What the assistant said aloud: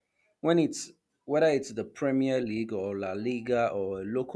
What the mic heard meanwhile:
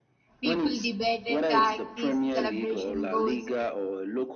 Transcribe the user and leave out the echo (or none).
People debate a tactics, celebration goals,